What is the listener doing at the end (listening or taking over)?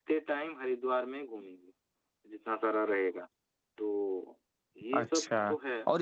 taking over